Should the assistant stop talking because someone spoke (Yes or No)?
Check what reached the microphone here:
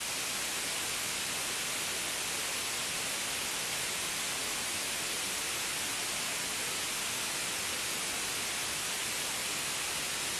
No